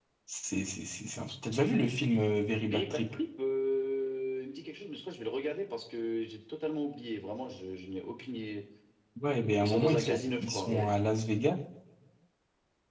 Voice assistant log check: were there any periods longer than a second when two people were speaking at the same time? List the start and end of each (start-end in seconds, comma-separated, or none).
9.6-10.9